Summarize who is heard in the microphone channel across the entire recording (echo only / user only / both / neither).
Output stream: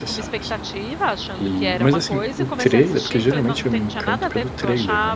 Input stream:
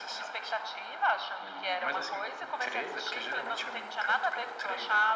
echo only